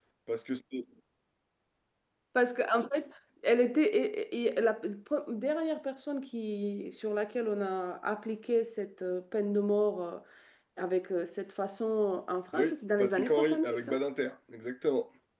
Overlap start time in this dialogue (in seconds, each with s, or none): 12.5 s